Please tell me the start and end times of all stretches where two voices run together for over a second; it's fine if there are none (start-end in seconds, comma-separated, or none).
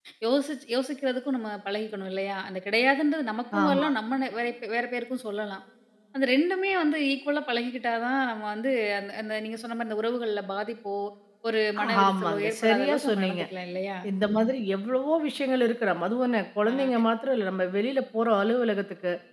12.1-13.4